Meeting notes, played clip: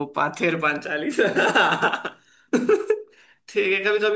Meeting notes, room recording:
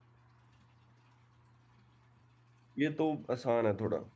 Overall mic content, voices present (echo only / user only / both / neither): user only